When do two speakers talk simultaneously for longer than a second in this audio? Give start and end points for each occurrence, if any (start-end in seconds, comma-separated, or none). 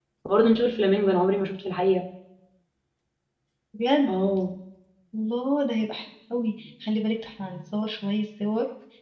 none